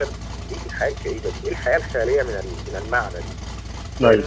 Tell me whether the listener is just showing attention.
Yes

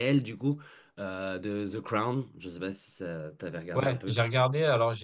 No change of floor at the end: No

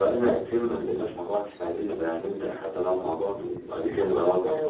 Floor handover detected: Yes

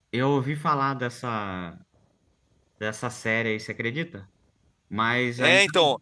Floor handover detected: Yes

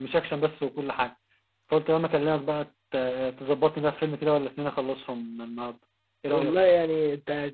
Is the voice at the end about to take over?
Yes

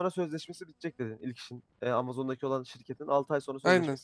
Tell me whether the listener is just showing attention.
No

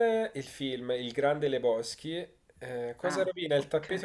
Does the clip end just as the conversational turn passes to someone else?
No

